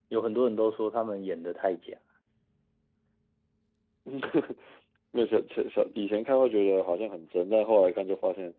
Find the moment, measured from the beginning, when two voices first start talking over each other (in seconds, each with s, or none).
none